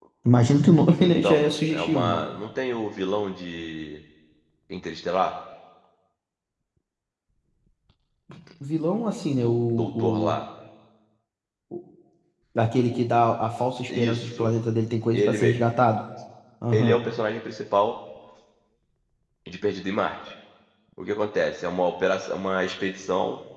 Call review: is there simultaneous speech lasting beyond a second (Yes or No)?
Yes